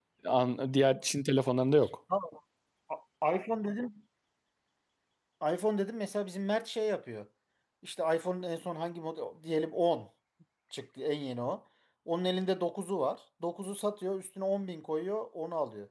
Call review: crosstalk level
none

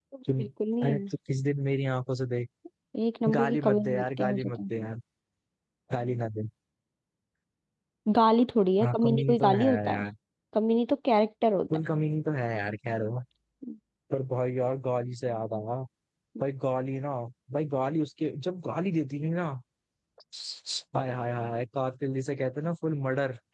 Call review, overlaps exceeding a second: present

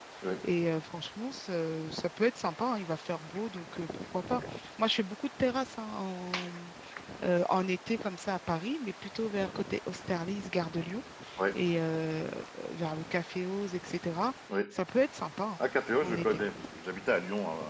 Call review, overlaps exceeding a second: none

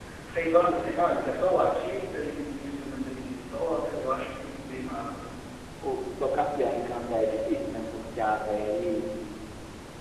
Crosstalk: none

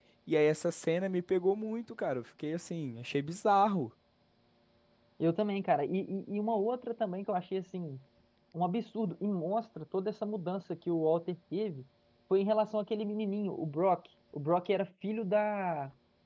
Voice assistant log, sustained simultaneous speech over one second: none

